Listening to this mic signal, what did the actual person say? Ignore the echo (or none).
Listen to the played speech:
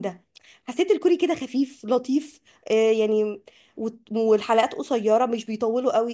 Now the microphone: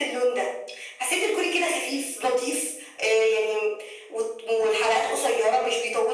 none